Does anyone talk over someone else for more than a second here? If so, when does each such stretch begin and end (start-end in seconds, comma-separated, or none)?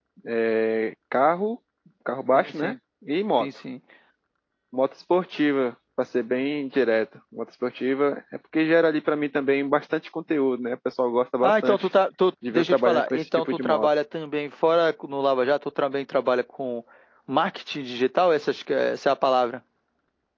12.5-13.9